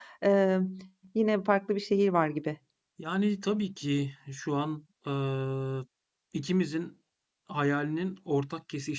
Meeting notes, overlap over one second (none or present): none